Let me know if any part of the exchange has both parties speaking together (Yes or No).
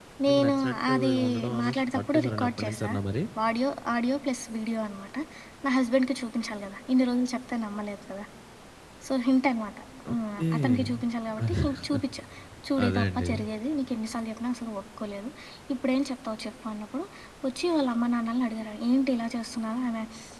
Yes